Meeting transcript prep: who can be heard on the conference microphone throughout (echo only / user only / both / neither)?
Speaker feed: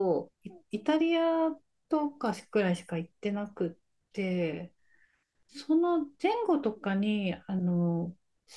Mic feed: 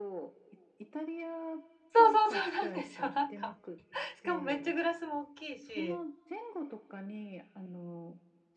both